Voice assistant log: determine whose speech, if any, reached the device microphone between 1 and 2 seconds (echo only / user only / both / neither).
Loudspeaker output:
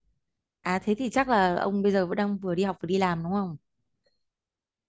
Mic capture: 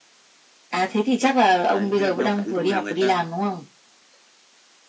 both